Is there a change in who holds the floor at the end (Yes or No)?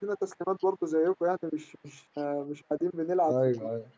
Yes